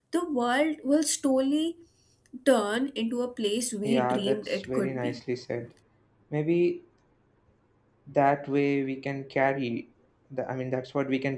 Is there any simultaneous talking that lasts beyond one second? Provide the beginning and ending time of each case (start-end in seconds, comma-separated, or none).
3.8-5.2